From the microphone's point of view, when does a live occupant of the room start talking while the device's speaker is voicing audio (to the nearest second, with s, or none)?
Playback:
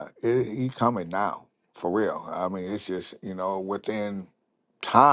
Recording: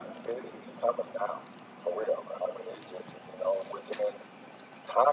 none